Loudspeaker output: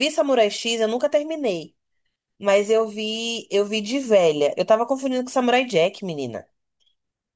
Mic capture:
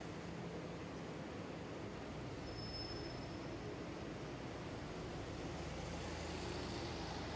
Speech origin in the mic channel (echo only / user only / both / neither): neither